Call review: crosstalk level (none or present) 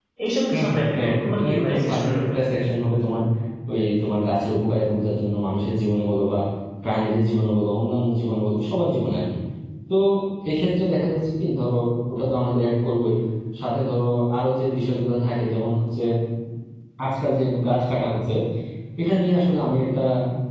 present